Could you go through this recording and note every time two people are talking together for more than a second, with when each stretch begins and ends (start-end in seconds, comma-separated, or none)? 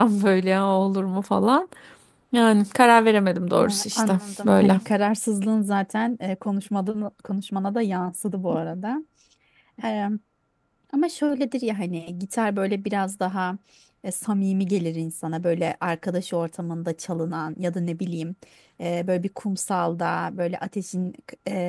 3.6-4.8